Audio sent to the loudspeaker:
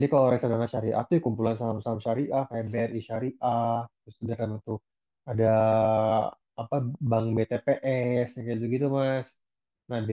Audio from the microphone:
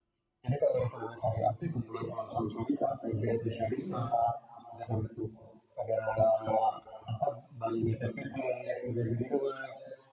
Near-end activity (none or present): present